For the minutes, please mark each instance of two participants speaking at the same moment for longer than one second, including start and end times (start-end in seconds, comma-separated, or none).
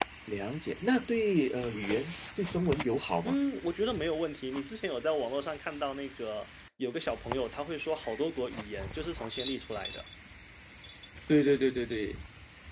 none